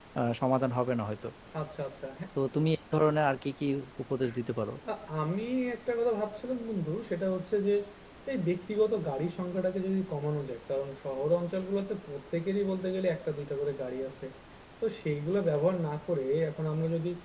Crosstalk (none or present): none